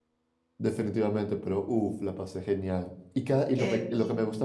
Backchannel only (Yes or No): Yes